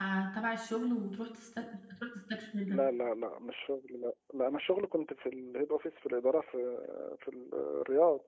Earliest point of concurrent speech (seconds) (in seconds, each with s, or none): none